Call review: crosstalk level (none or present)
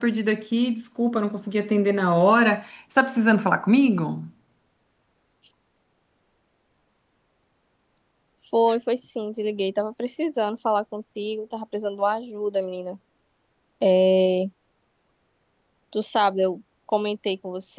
none